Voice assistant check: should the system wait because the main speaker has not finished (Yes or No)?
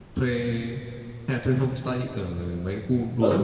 No